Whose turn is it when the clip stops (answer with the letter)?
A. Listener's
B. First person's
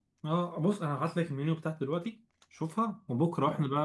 B